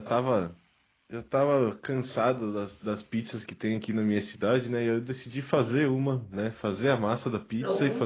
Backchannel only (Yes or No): Yes